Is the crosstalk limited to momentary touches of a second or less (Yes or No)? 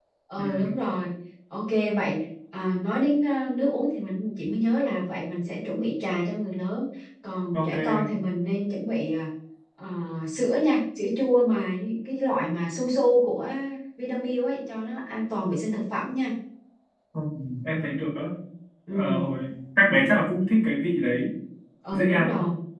Yes